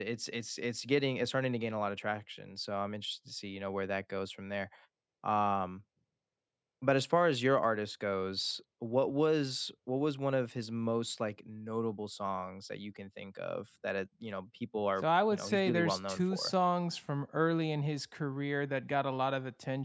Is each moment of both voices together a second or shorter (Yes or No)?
No